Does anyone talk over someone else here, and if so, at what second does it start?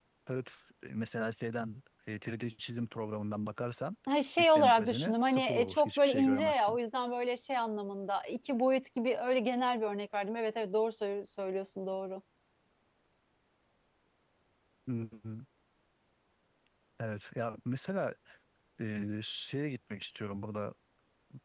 4.4 s

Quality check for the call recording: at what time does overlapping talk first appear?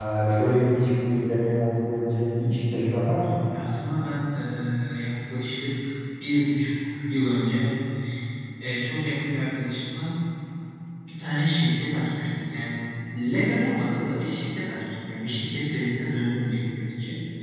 none

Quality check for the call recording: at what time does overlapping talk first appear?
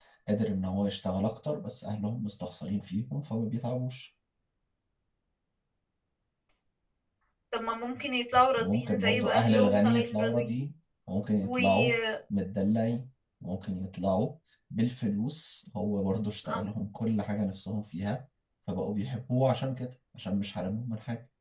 8.6 s

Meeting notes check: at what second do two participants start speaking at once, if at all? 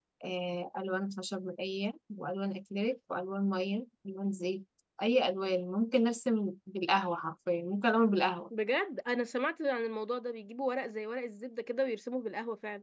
none

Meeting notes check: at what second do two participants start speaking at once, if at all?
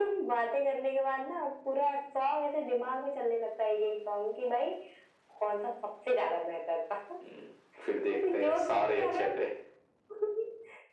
8.1 s

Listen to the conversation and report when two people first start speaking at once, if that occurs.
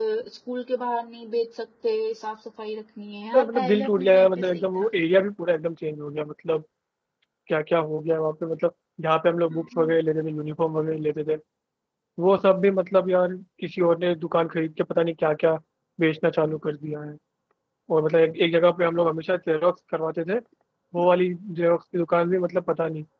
3.3 s

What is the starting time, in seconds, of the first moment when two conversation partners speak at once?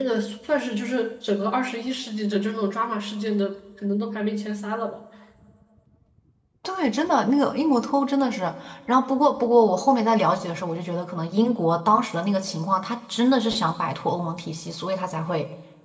none

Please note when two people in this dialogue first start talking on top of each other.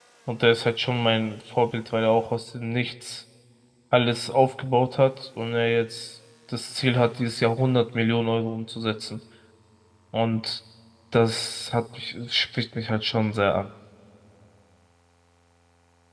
none

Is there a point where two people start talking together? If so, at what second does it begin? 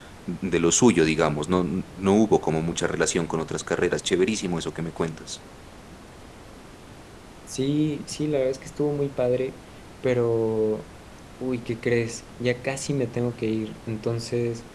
none

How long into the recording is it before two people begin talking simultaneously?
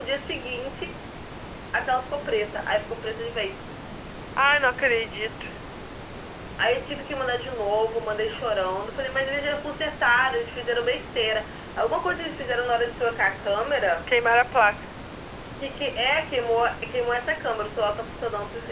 none

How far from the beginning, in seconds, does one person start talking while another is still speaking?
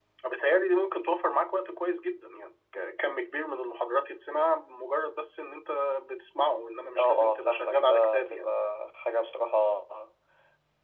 7.0 s

